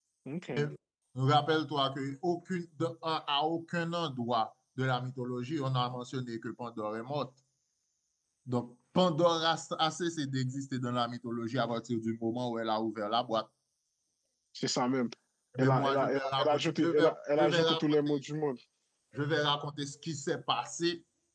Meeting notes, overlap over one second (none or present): present